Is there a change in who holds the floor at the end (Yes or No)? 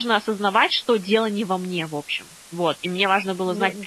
No